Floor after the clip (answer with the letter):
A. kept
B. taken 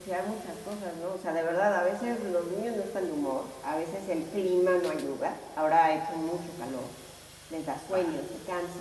A